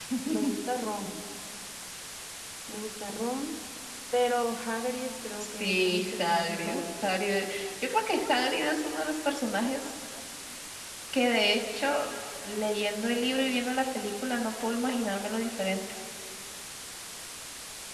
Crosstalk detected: Yes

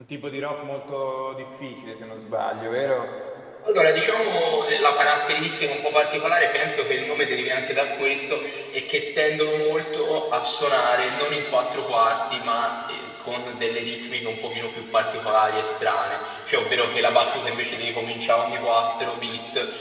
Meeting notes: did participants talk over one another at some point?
No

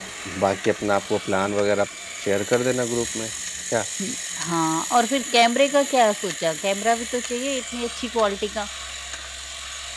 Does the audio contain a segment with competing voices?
No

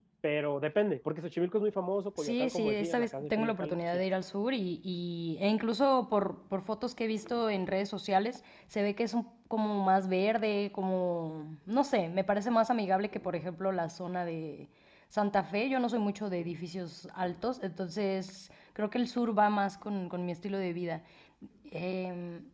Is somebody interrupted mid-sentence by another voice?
Yes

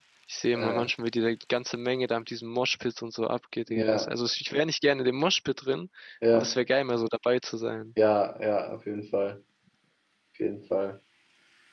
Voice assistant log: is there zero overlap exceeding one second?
Yes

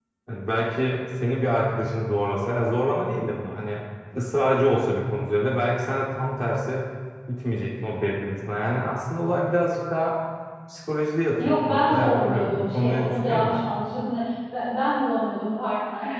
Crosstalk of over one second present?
Yes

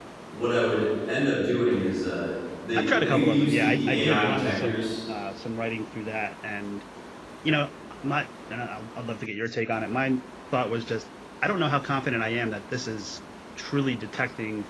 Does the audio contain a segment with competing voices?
Yes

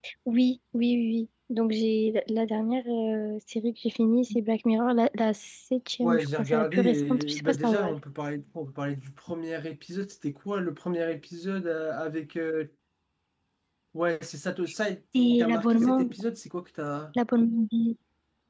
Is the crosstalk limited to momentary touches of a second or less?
No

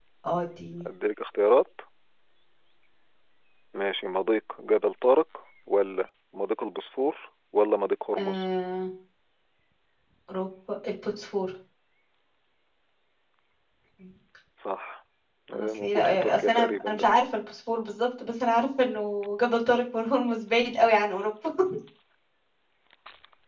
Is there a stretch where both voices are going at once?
Yes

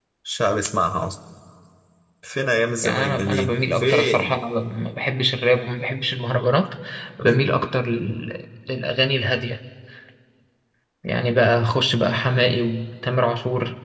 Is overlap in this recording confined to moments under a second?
No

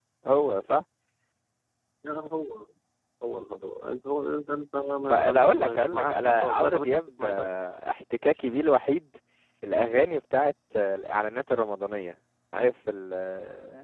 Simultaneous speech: Yes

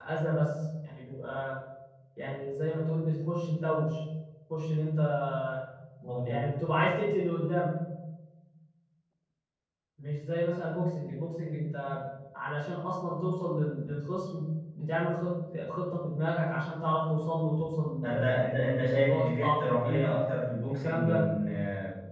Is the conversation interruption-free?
No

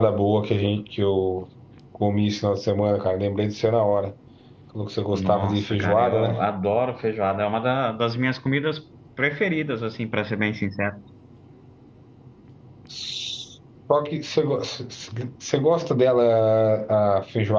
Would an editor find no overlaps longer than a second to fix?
No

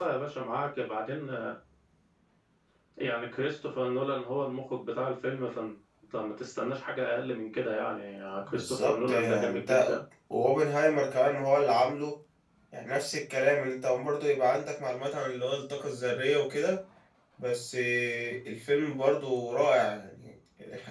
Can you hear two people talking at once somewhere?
Yes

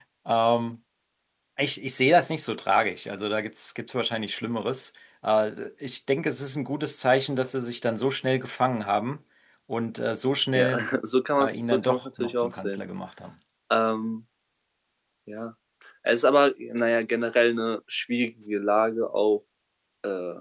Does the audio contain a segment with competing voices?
Yes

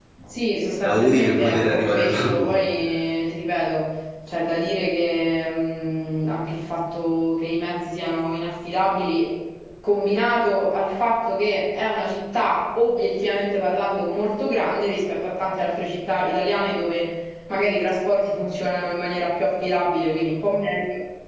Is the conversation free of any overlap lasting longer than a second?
No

